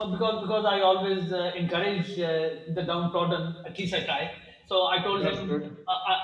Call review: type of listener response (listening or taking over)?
listening